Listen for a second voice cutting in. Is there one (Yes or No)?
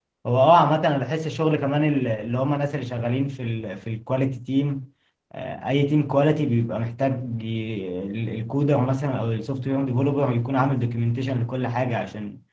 No